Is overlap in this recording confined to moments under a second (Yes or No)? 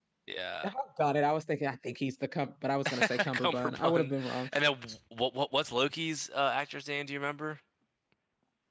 No